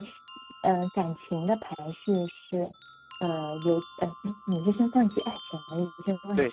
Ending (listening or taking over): taking over